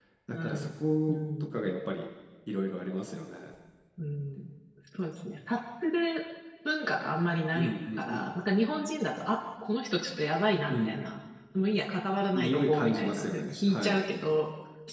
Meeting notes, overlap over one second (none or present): present